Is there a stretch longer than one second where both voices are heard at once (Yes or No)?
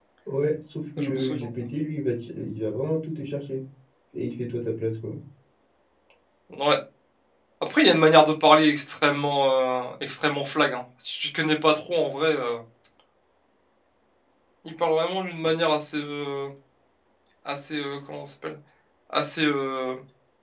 No